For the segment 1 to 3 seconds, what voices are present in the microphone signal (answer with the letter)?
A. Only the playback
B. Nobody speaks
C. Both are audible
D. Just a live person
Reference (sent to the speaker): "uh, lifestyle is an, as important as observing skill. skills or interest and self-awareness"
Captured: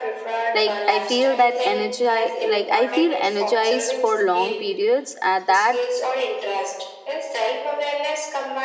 C